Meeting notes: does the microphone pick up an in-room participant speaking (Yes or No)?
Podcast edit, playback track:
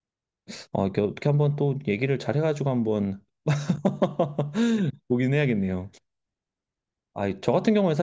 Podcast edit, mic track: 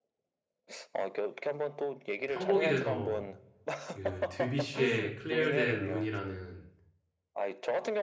Yes